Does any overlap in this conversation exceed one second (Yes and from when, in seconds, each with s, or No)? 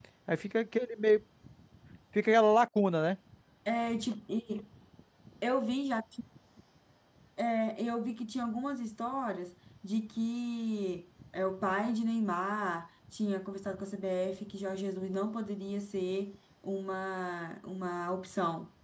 No